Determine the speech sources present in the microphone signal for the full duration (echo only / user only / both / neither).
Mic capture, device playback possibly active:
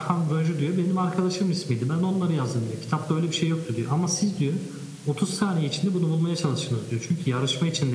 echo only